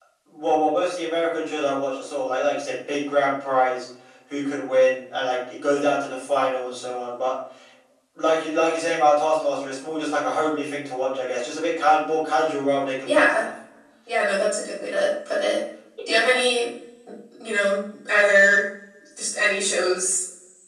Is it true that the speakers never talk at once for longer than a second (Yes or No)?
Yes